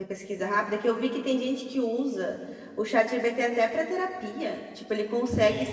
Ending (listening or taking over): listening